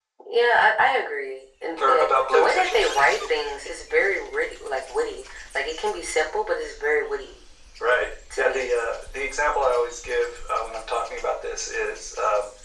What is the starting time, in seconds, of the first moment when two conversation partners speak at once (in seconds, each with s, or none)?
1.8 s